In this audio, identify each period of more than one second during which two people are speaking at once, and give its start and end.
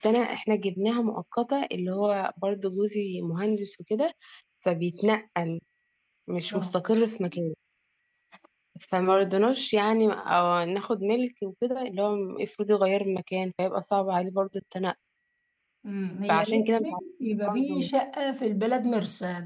16.3-17.9

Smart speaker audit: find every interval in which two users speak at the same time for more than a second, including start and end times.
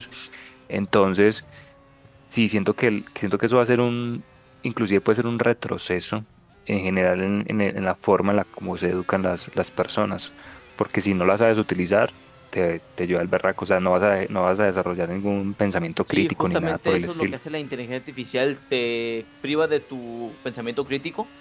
16.1-17.4

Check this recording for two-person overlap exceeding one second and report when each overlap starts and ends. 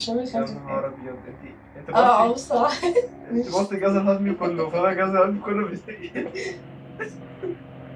none

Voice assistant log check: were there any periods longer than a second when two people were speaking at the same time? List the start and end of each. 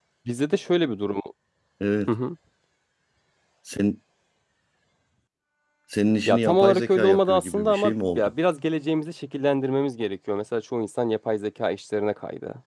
6.3-8.3

